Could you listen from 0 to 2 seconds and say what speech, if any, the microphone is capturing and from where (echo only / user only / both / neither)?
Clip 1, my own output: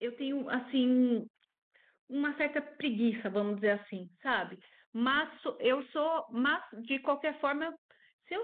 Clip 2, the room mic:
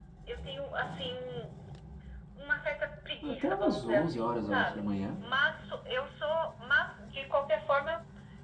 echo only